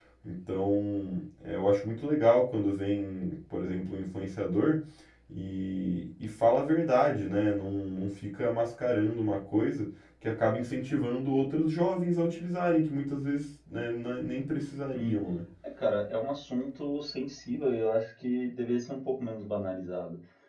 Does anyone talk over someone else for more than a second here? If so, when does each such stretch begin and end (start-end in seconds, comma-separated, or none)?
none